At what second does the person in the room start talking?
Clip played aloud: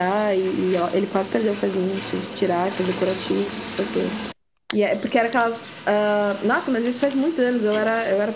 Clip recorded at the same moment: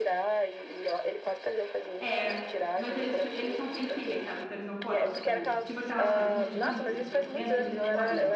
2.0 s

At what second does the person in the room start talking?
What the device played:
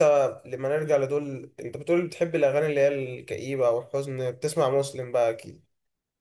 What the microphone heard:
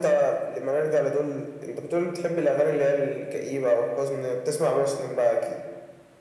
none

